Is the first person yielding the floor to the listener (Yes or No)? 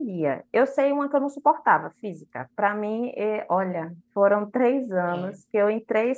No